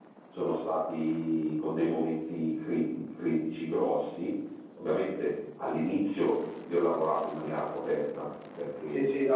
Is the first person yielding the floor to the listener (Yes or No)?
Yes